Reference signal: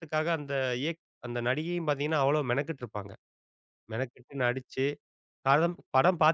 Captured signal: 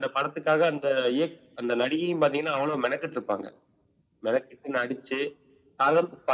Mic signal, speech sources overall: echo only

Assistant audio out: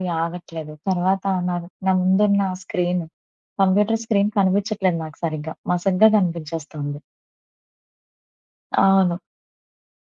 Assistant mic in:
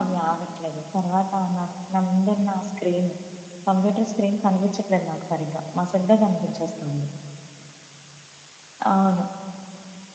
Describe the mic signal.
echo only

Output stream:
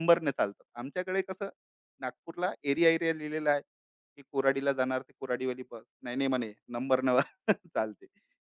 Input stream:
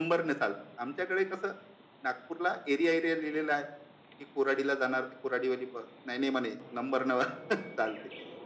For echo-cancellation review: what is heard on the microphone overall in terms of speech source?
echo only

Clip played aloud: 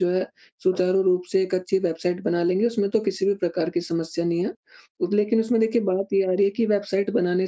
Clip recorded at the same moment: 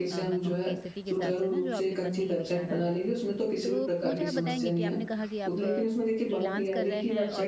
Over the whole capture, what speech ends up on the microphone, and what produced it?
both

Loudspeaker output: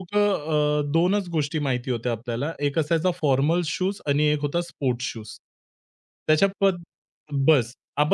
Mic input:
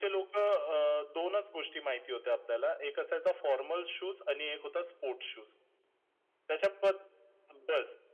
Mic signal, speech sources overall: echo only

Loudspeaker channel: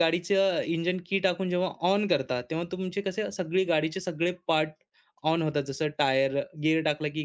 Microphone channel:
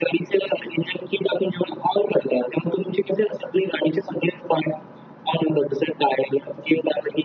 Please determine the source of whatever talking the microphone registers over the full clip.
echo only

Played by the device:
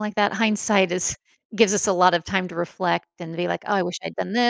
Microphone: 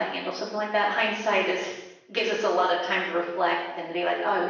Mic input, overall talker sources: echo only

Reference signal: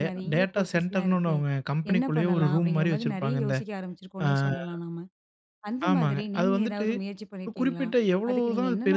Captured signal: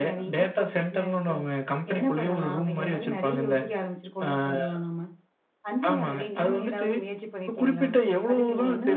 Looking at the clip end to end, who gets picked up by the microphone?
echo only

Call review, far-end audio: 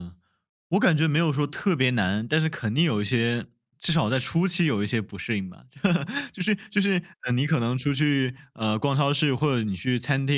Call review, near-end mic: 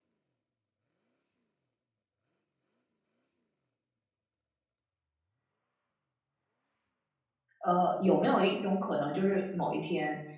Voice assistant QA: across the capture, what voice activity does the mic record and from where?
user only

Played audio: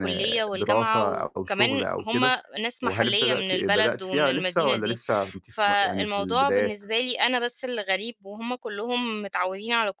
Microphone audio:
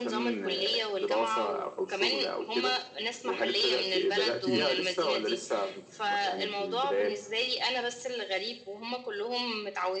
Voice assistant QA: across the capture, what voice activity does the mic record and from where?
both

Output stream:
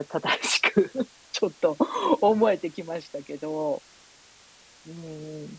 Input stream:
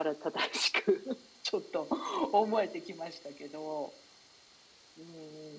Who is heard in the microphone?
echo only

